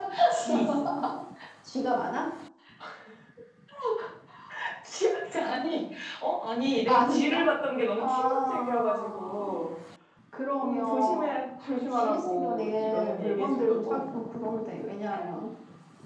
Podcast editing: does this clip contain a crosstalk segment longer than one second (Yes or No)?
Yes